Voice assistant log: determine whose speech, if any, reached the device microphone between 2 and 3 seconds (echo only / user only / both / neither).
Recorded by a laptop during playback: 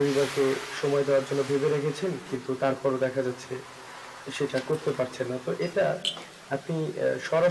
echo only